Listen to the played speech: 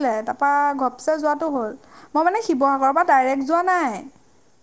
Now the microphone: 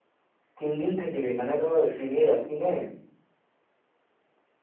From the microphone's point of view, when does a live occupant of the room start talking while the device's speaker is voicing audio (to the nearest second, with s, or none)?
1 s